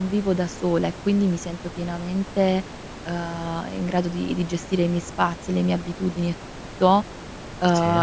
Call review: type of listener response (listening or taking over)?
listening